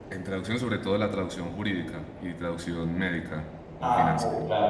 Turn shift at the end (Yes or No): Yes